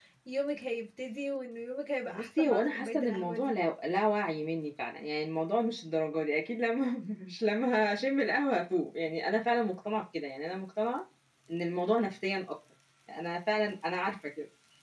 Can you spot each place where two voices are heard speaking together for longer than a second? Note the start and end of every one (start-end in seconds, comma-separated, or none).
2.1-3.6